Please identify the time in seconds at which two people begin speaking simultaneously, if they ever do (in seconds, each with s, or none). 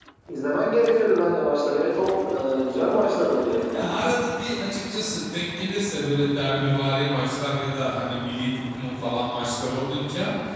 none